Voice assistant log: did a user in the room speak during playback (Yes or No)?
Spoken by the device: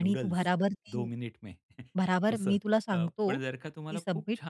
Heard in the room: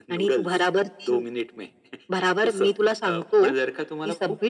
No